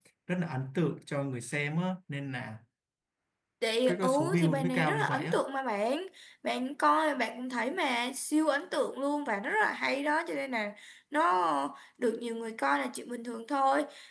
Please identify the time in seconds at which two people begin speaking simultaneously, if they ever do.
3.9 s

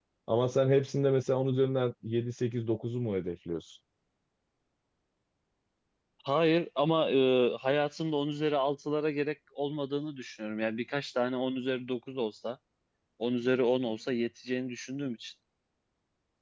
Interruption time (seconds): none

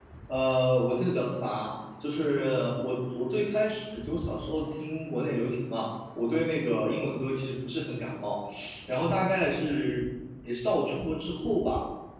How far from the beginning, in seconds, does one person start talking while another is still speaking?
none

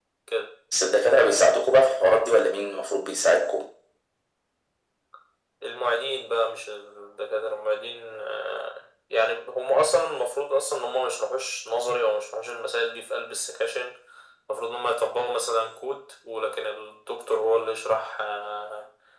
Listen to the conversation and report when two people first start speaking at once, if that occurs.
none

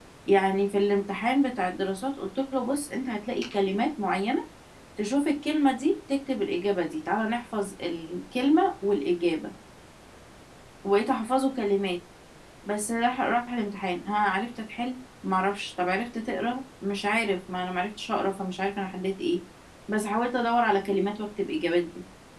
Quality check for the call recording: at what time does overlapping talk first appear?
none

